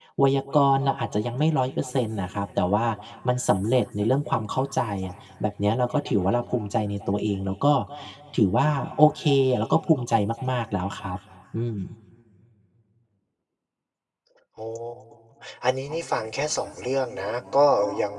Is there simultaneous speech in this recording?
No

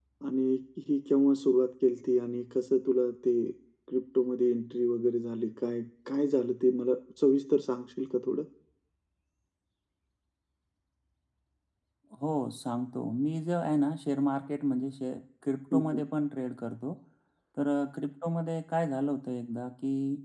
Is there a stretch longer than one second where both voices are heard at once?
No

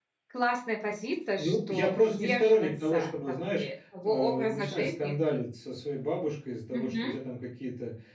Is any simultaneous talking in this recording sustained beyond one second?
Yes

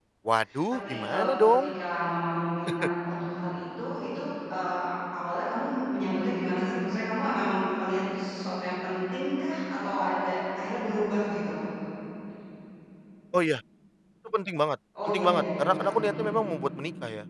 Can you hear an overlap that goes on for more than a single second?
Yes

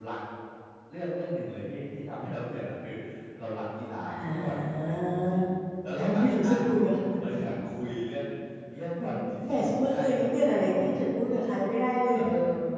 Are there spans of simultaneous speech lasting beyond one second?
Yes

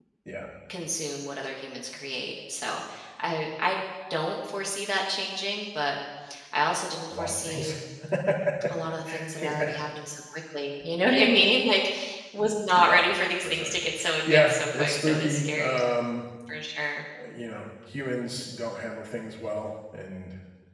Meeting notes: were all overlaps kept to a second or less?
No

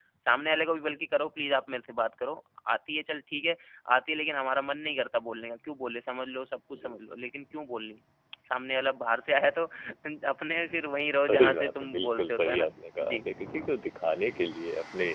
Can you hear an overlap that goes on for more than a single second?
Yes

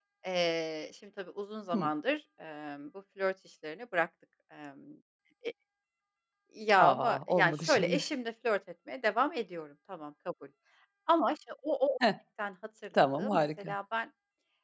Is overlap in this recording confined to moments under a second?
No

